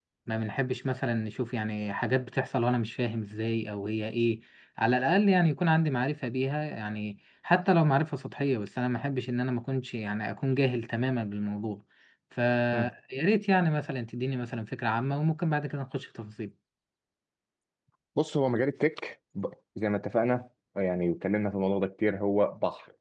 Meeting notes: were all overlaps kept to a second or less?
Yes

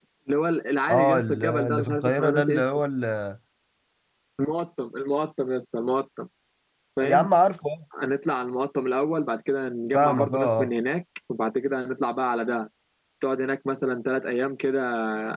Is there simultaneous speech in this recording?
Yes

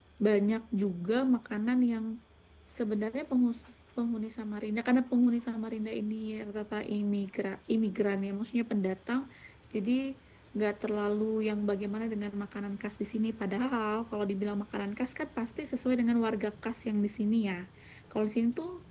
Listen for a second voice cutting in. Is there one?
No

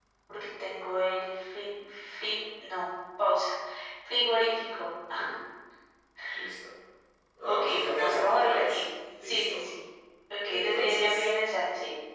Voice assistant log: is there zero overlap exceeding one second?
No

